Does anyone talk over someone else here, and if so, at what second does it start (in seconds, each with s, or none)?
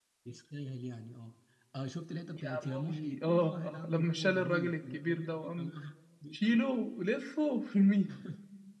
2.3 s